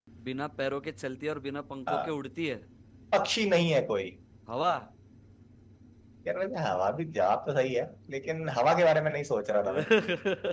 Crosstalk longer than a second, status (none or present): none